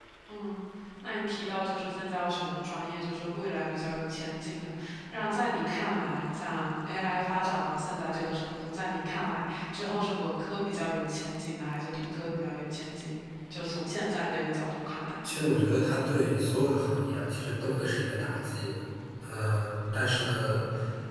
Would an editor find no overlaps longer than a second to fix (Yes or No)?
Yes